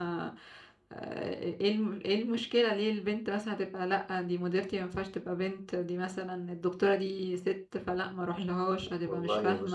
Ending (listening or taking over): taking over